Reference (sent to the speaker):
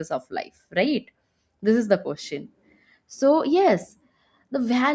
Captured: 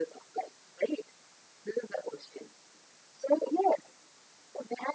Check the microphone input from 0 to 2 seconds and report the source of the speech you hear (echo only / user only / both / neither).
echo only